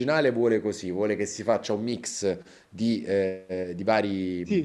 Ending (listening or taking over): listening